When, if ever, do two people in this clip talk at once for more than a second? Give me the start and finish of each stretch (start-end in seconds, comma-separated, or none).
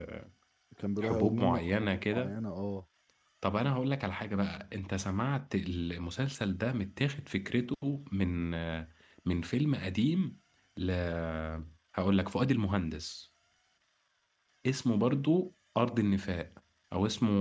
1.0-2.3